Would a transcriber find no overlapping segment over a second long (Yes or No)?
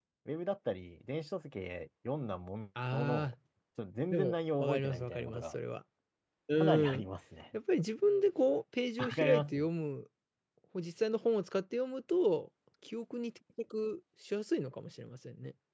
No